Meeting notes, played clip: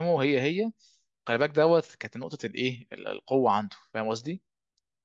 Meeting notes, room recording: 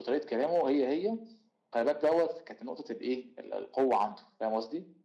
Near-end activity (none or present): none